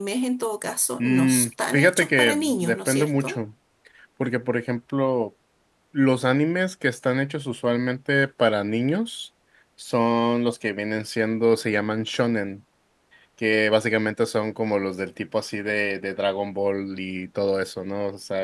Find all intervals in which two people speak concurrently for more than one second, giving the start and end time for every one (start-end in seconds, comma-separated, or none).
1.0-3.4